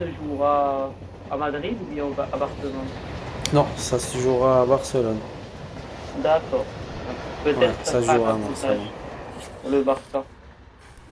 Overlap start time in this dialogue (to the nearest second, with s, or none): 8 s